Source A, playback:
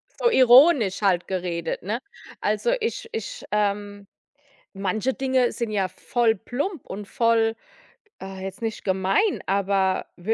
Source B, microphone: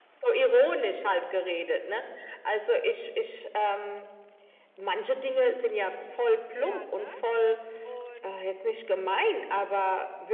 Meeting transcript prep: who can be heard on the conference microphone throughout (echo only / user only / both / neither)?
both